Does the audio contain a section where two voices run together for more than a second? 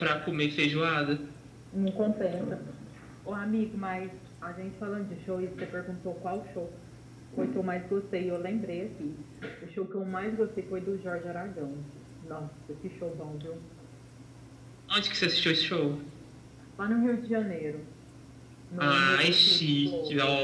Yes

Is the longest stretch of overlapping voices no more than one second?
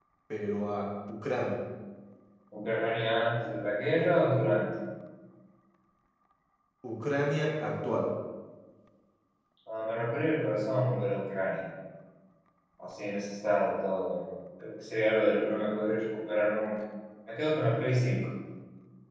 Yes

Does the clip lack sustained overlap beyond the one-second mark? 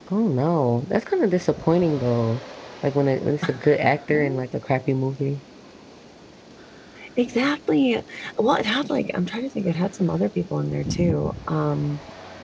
Yes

